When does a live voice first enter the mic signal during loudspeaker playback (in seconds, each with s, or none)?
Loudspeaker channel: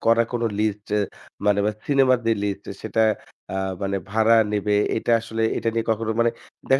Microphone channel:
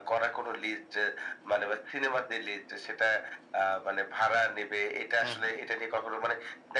5.2 s